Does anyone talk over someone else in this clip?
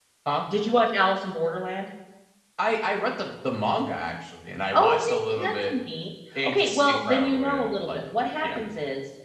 Yes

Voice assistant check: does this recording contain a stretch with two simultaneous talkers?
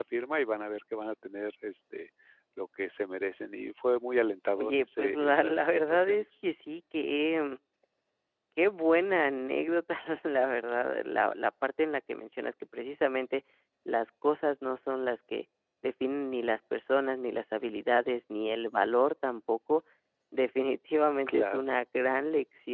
Yes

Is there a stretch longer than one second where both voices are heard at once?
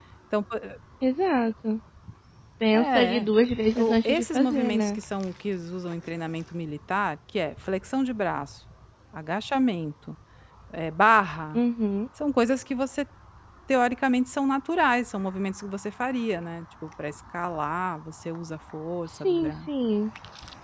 Yes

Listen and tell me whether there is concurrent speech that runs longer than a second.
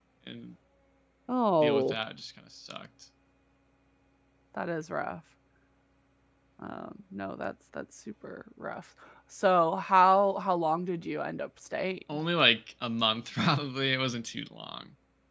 No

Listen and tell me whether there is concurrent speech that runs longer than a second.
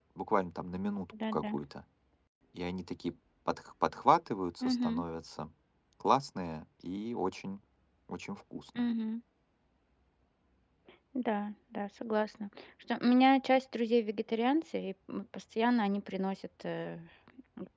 No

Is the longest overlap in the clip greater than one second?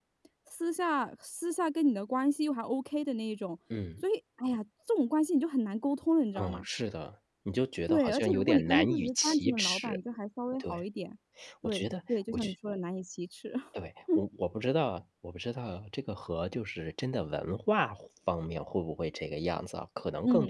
Yes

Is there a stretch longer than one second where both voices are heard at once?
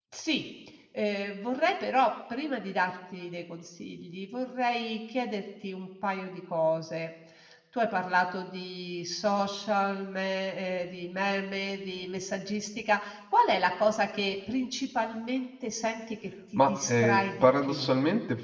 Yes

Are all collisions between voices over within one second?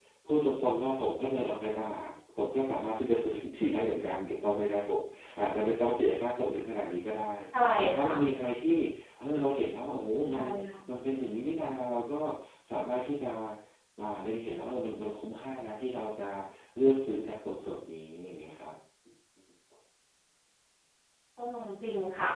Yes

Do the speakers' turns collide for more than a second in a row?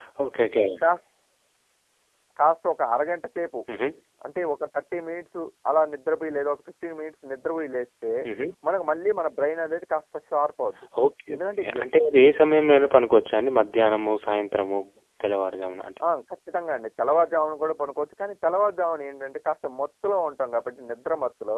No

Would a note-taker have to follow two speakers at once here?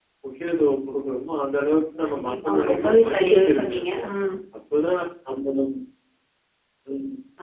Yes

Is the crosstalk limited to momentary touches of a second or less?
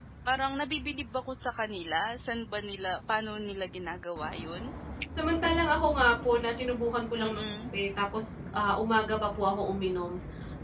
Yes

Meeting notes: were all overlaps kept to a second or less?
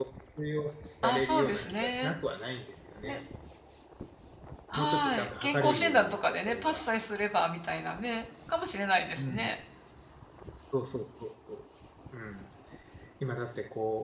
No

